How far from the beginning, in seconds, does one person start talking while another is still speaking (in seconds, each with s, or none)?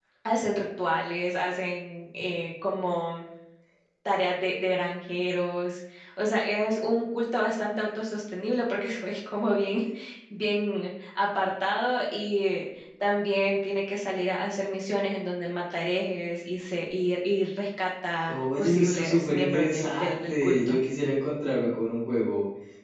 18.3 s